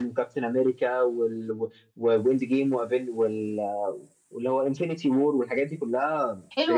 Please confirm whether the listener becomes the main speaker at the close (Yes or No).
Yes